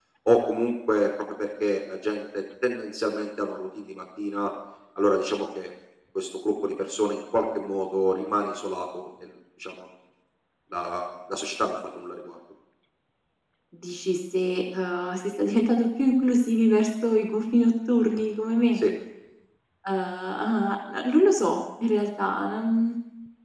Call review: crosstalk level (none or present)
none